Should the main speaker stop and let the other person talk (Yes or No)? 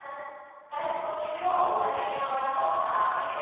No